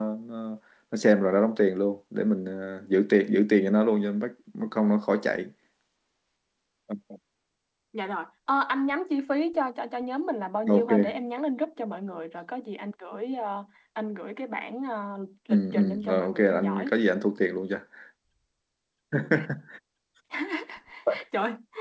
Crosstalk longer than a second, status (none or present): present